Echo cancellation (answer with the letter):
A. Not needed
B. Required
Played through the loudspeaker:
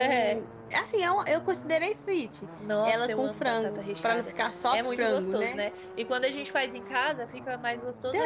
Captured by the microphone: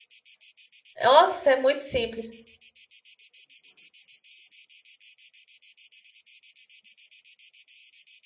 A